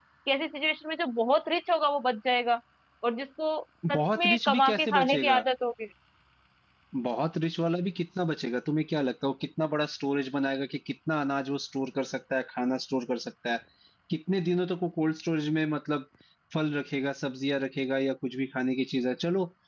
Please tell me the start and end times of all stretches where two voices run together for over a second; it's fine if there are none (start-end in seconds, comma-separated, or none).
3.9-5.4